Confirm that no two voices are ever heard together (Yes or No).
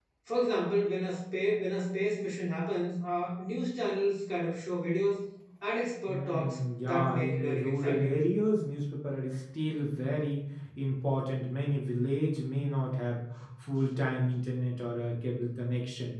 No